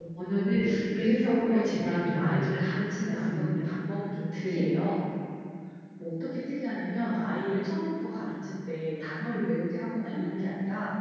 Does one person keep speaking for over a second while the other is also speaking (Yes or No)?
Yes